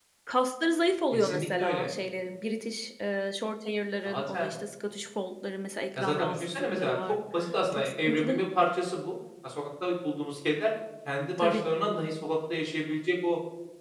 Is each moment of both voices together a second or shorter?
No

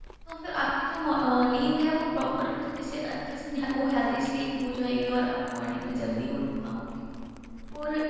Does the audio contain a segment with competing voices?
No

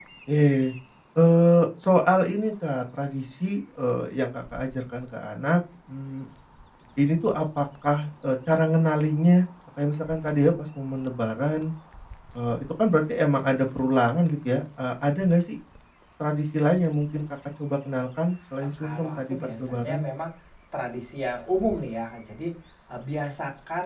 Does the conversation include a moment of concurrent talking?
Yes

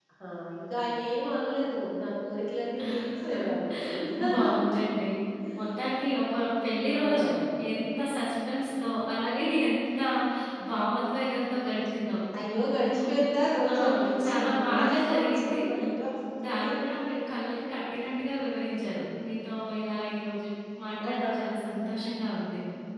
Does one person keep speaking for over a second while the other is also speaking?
Yes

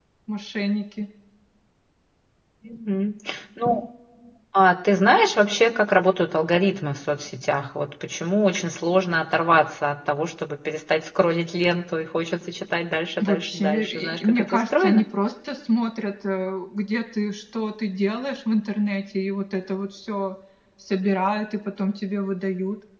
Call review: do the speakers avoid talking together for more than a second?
No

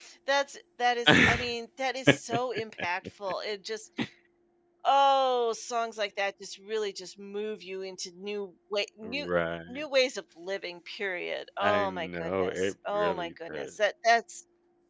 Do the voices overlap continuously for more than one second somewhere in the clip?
Yes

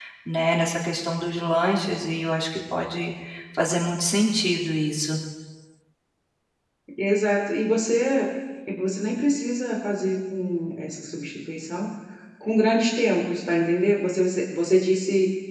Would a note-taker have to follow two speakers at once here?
No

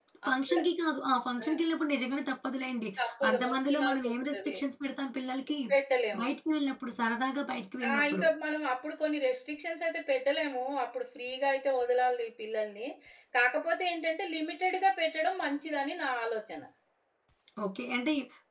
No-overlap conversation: No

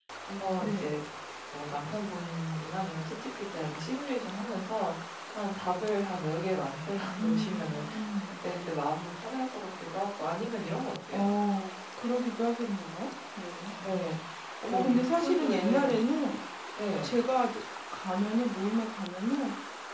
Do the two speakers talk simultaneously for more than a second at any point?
Yes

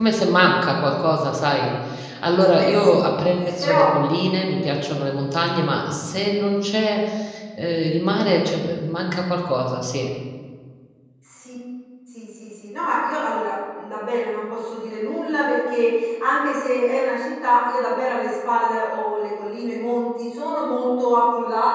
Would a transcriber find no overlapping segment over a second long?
Yes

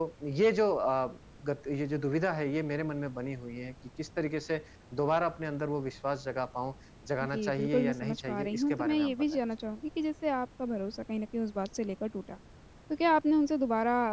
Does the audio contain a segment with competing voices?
Yes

